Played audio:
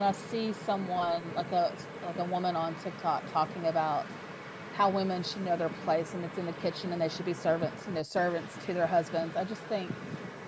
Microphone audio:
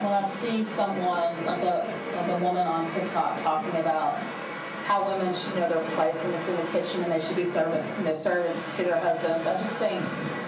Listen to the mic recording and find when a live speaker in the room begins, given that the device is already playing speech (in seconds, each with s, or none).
none